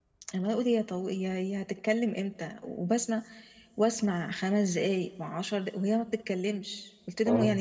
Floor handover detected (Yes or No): No